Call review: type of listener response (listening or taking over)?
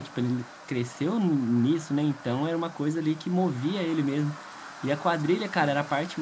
listening